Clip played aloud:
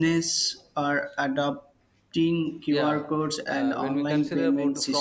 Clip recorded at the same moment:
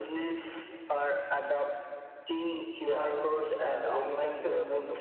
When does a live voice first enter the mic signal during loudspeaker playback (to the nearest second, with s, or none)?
none